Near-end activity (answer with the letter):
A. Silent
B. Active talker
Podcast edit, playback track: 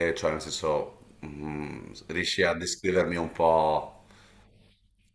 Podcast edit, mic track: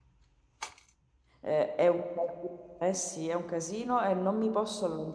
B